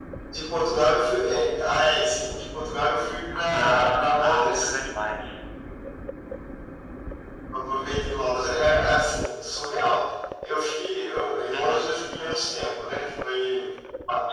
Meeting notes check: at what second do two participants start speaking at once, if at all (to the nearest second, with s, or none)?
4 s